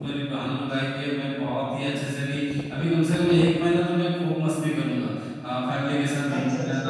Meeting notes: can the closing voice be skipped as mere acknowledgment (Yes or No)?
Yes